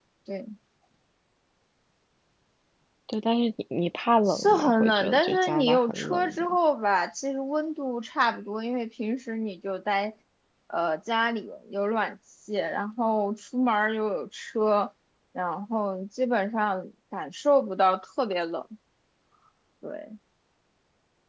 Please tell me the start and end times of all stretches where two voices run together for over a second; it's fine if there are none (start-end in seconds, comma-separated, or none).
4.3-6.6